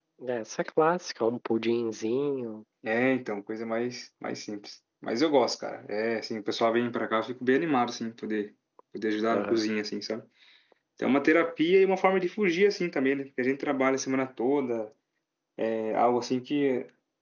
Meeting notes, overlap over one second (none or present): none